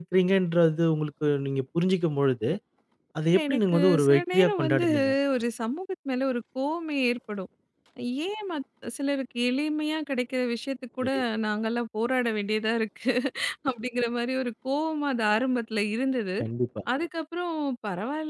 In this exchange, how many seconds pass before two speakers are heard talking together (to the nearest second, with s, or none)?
3 s